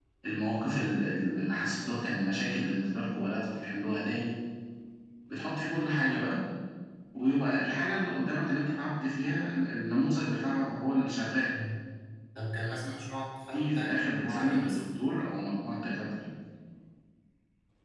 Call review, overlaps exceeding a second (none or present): present